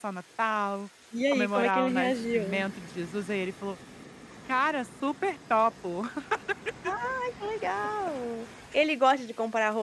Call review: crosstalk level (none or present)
present